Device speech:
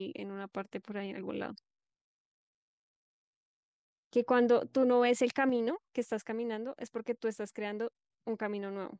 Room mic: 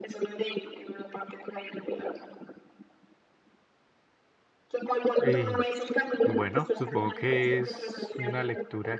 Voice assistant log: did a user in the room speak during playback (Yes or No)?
Yes